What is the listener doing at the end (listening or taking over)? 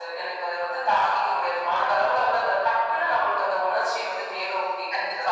taking over